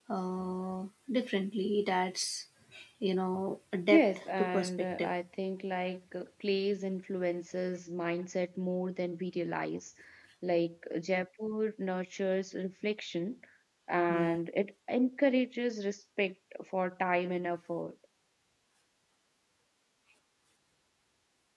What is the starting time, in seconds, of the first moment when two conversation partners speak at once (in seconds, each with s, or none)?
3.9 s